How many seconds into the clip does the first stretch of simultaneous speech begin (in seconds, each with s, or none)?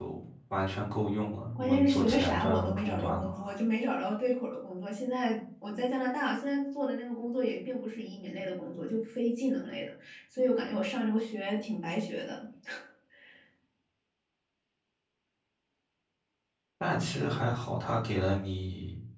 1.5 s